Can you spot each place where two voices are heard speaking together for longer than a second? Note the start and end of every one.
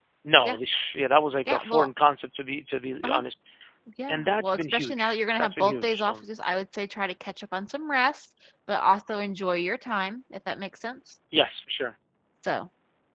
4.1-6.1

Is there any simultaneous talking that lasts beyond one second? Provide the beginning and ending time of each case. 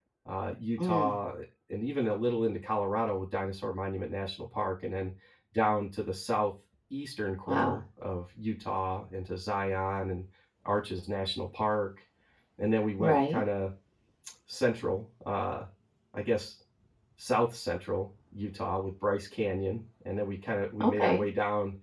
none

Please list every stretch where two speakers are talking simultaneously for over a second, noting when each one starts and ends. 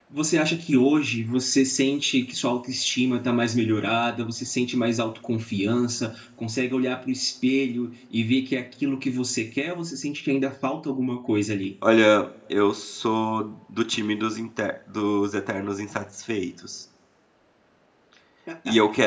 none

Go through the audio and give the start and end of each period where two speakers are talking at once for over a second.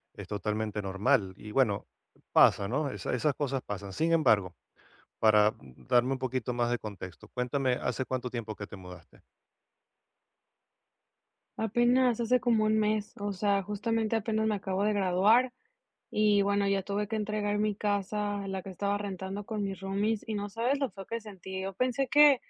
none

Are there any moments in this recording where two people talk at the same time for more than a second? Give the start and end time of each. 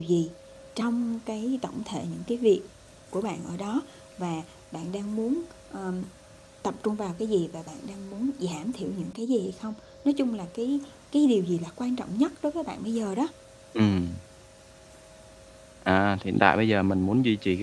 none

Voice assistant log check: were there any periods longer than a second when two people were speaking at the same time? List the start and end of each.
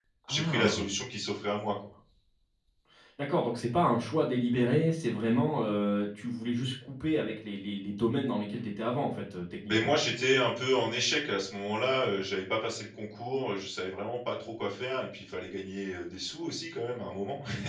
none

